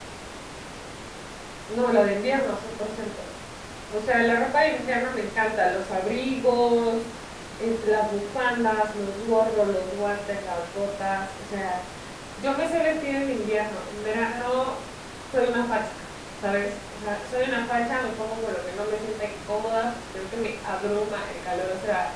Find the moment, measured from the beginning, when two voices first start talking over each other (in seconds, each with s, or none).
none